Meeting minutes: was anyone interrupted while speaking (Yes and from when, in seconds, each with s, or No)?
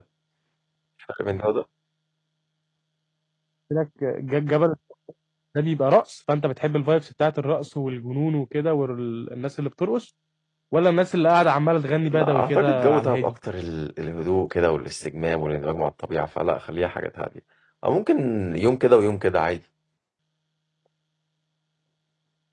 Yes, from 12.0 s